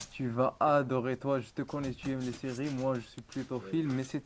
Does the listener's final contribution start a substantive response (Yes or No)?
No